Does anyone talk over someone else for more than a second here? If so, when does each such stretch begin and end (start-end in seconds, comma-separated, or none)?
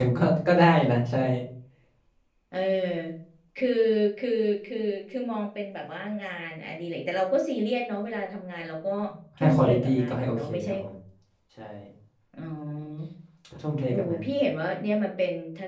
9.4-10.7